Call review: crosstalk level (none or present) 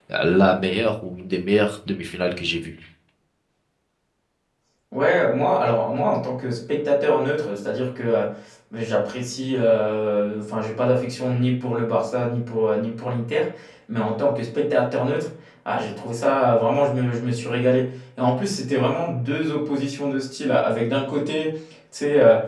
none